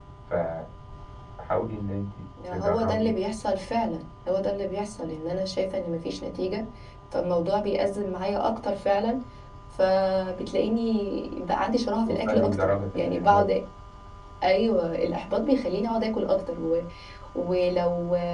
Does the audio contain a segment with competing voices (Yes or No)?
Yes